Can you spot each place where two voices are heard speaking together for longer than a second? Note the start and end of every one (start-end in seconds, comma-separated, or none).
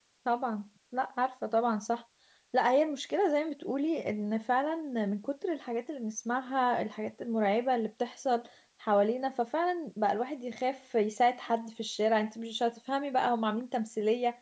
none